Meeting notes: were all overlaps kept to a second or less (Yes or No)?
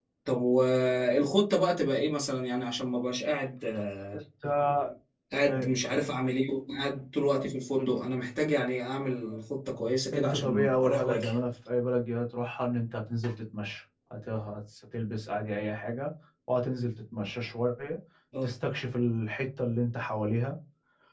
No